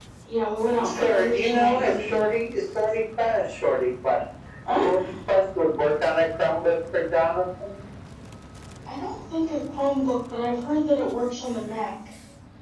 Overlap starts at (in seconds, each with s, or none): 0.8 s